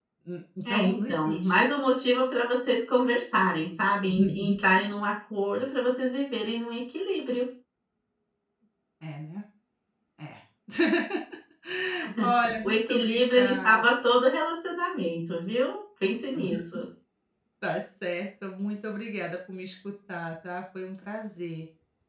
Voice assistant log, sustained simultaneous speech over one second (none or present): present